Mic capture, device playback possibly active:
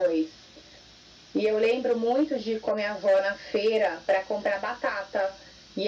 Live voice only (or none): none